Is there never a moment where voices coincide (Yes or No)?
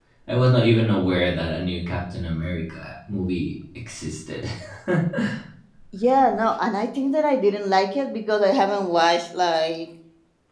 Yes